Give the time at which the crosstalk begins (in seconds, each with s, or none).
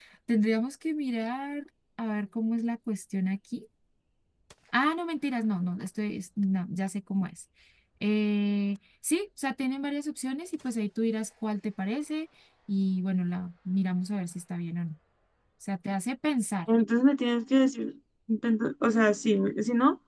none